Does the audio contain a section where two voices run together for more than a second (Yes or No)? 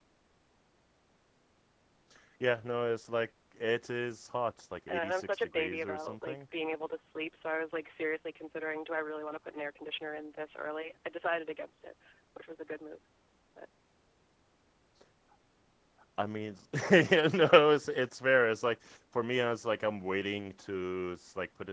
Yes